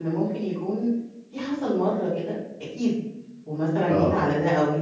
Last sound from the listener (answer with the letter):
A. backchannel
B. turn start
A